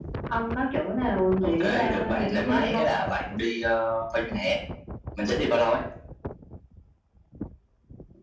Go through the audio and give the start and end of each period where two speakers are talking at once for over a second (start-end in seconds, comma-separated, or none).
1.4-2.8